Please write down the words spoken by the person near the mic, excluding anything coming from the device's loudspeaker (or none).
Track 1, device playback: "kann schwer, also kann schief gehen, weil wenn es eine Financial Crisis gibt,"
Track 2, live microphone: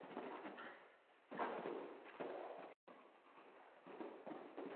none